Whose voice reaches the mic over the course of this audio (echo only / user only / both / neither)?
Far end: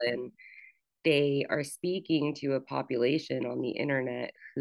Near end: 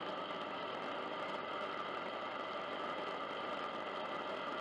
neither